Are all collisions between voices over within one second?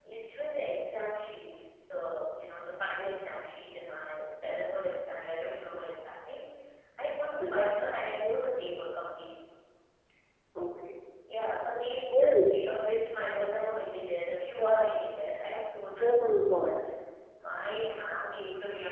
Yes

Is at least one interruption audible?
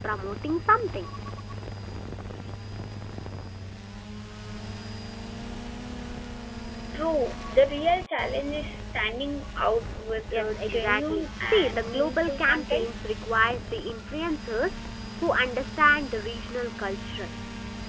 Yes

